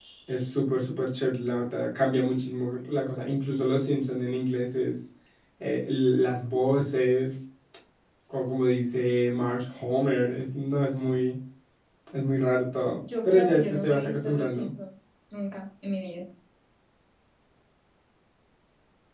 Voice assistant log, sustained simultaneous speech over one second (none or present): present